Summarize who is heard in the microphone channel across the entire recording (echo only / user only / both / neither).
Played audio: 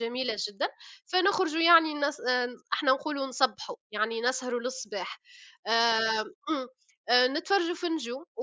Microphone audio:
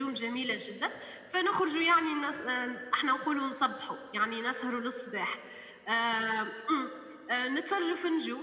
echo only